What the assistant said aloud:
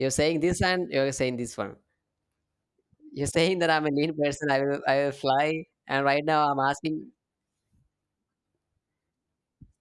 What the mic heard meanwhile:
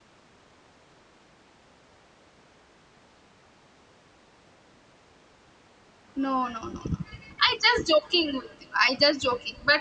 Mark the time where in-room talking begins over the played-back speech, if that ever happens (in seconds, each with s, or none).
6.2 s